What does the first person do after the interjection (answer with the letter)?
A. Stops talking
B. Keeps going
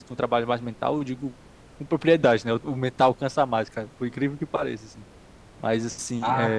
B